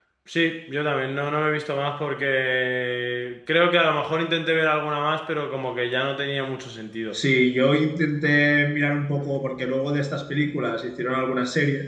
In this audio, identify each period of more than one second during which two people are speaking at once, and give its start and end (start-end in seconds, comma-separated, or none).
none